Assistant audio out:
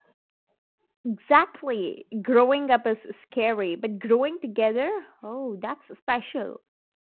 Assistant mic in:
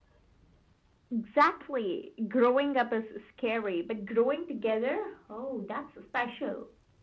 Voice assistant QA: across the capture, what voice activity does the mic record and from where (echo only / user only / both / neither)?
echo only